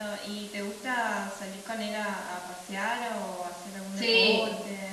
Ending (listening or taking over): taking over